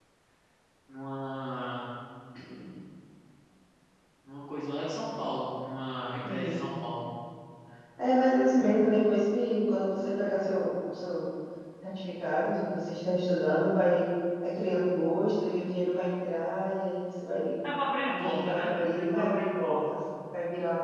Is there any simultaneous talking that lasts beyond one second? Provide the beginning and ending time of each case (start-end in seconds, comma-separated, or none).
18.1-20.0